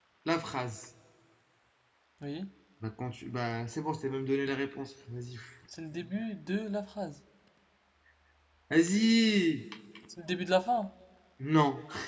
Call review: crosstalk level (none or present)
none